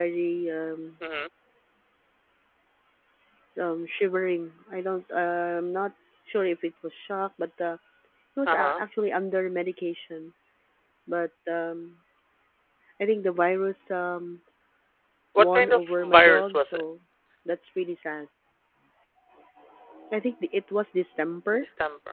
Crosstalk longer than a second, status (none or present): present